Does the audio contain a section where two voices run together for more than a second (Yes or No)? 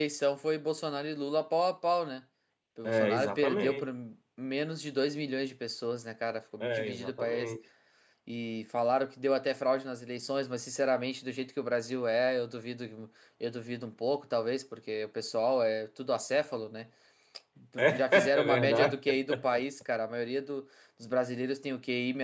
Yes